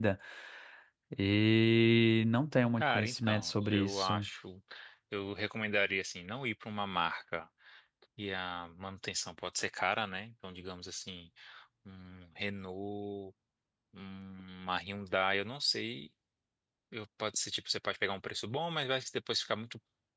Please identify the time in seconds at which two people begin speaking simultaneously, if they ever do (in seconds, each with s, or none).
2.8 s